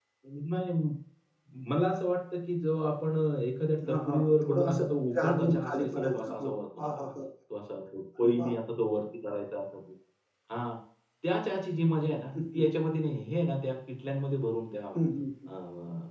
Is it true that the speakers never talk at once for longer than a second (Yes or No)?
No